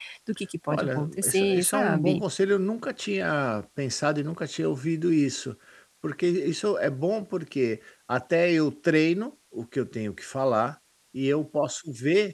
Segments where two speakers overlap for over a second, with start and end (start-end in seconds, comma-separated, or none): 0.7-2.2